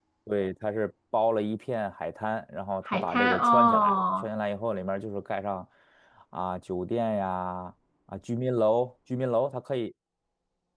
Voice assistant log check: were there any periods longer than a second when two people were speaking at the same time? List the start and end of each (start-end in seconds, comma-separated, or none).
2.9-4.3